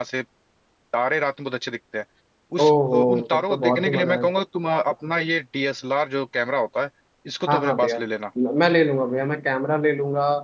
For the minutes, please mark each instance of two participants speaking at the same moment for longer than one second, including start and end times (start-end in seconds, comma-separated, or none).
2.6-4.3